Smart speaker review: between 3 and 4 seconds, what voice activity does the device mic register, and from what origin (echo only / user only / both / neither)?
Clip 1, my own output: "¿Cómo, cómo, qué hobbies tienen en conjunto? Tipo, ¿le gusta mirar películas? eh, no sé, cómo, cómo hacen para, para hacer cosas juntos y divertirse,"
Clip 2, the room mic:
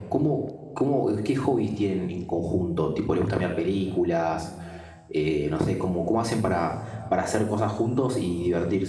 echo only